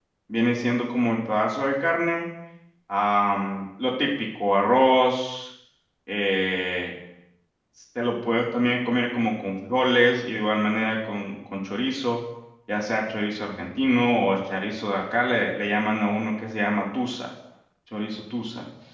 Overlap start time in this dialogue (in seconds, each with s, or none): none